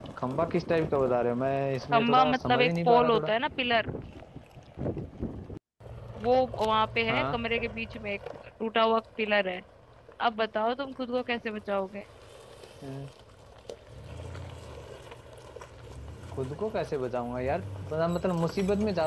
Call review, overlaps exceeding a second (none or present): present